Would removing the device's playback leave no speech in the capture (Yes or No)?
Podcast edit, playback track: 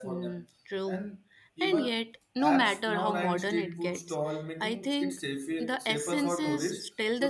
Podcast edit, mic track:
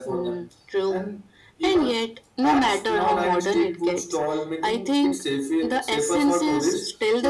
Yes